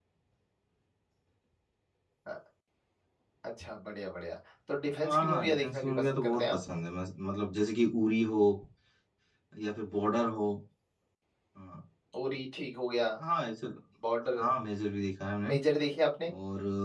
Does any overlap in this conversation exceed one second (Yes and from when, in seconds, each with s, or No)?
Yes, from 5.0 s